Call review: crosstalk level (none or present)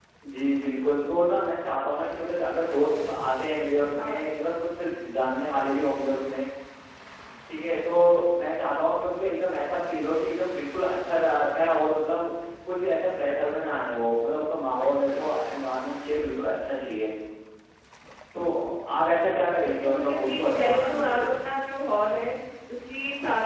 present